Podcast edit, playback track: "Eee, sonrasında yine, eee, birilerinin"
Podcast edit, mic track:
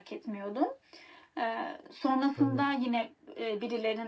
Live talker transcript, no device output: Anladım.

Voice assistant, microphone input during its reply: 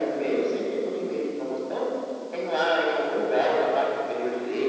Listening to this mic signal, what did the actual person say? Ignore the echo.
none

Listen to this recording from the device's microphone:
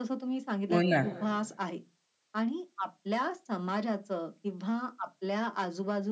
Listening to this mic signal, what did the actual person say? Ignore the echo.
हो ना.

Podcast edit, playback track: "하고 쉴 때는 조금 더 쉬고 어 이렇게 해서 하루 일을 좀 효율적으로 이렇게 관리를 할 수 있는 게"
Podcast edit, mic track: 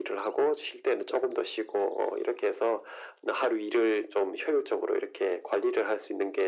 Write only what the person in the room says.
none

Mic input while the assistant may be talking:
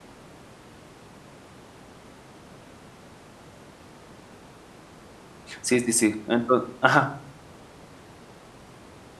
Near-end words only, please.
Sí, sí, sí. Enton ajá.

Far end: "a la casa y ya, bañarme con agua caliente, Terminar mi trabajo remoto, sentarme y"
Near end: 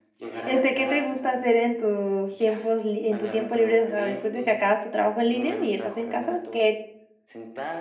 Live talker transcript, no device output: Este, ¿qué te gusta hacer en tus tiempos li en tu tiempo libre? O sea, después de que acabas tu trabajo en línea y estás en casa, ¿qué?

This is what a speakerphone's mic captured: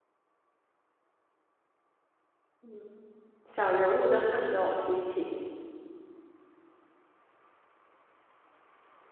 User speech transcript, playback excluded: 嗯，小人物的奋斗心情，

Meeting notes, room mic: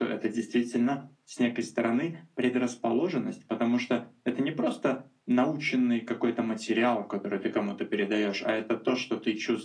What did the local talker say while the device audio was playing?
none

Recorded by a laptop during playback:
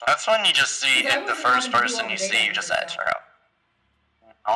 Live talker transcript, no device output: because I wasn't having to do all the data entry stuff.

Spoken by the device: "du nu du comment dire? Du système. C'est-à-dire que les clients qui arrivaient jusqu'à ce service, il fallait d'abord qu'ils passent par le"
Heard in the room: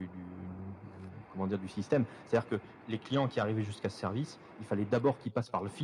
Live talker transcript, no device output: none

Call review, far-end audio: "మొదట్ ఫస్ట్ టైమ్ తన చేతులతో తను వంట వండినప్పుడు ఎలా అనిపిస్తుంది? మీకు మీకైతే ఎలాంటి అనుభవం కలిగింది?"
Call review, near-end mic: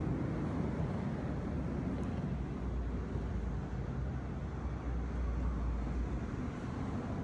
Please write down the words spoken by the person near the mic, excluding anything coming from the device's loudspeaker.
none

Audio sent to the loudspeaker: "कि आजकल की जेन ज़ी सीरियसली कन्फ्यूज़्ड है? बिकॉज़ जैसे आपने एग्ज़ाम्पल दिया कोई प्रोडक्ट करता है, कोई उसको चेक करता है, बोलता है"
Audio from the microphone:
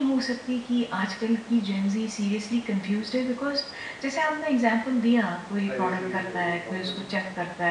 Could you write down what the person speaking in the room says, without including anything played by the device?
प्राइवेसी इज़ वेरी इम्पोर्टेंट

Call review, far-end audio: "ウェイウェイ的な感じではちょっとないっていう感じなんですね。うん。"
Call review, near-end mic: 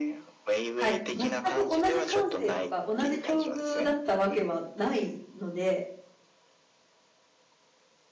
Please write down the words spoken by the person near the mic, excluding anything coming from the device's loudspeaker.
はい、全く同じ感性とか同じ境遇だったわけはないので、

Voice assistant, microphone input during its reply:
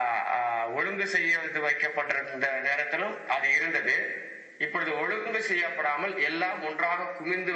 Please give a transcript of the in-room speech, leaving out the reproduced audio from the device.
none

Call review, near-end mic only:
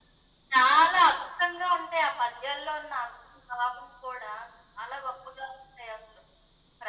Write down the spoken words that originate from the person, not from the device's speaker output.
none

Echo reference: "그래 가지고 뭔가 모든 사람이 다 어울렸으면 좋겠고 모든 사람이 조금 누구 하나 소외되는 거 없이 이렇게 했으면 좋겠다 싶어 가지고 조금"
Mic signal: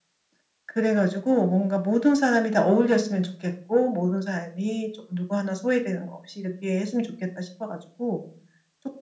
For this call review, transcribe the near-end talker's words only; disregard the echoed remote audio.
none

